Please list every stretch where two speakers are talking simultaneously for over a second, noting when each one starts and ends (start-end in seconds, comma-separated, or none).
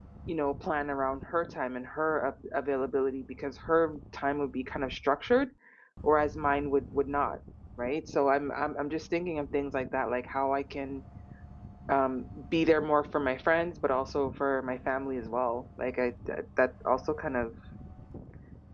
none